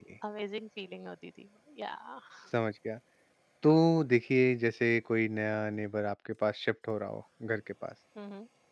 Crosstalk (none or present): none